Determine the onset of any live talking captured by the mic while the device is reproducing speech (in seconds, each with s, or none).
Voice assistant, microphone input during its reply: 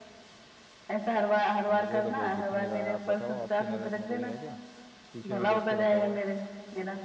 1.8 s